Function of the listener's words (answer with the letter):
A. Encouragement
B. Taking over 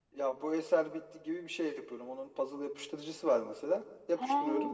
A